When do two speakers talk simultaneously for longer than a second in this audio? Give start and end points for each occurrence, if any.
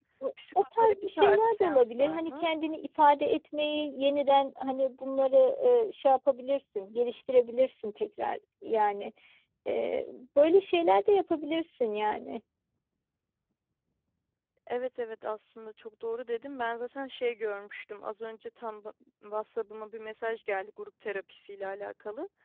0.6-2.5

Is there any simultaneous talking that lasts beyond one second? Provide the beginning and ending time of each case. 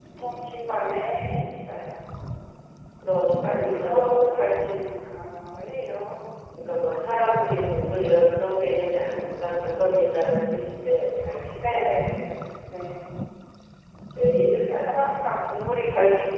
3.3-4.6

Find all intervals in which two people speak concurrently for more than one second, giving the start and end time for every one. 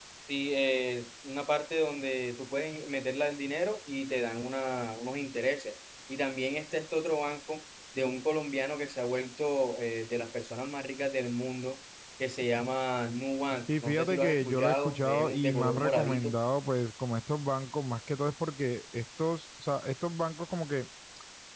13.7-16.3

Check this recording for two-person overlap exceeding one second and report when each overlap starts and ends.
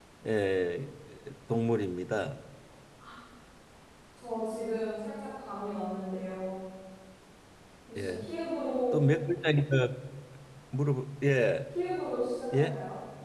none

